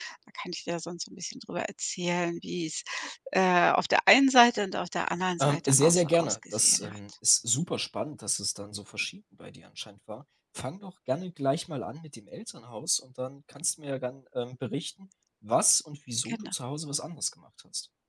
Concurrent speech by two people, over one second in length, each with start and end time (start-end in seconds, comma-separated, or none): 5.4-7.0